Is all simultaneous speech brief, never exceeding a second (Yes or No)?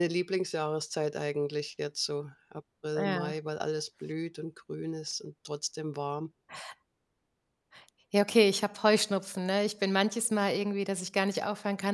Yes